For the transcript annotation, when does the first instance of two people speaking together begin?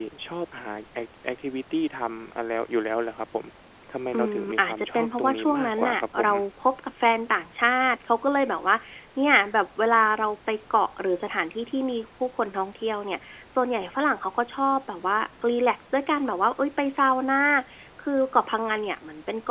4.2 s

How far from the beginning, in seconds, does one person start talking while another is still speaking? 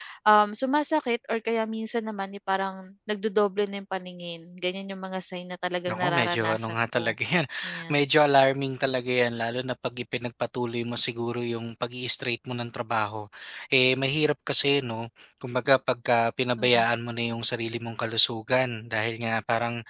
5.9 s

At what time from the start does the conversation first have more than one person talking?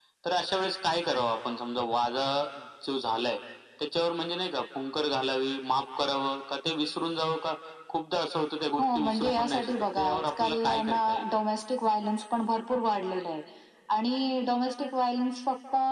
8.8 s

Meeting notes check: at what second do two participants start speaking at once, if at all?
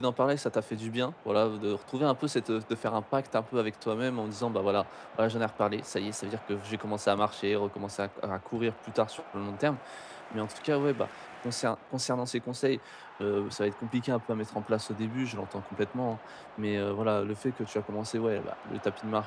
none

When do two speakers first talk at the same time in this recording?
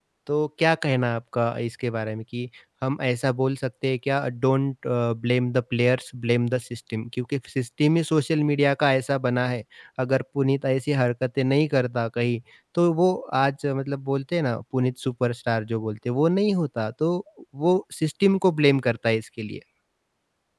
none

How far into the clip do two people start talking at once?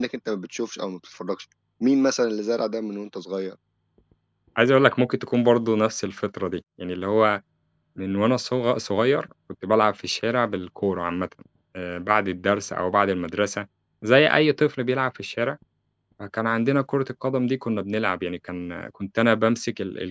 none

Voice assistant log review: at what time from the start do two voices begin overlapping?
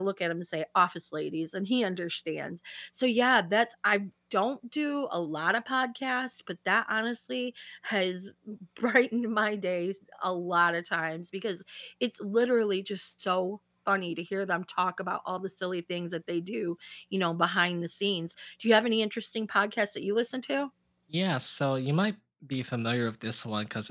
none

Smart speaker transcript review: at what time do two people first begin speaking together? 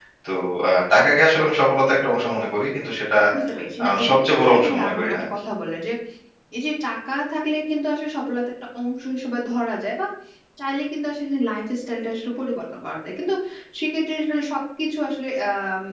3.8 s

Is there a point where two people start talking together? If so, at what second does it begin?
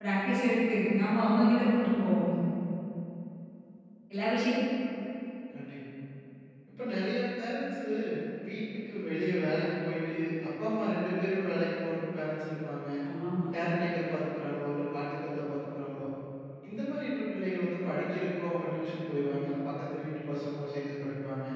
none

